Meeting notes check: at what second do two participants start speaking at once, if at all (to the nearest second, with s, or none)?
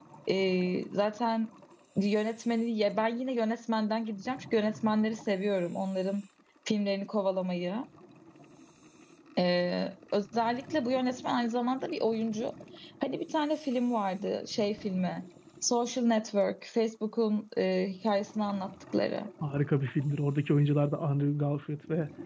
none